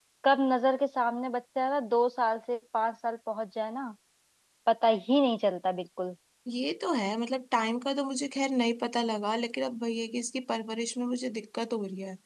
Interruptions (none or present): none